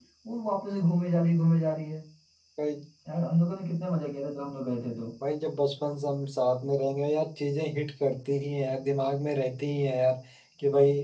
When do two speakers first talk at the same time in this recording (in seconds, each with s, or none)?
none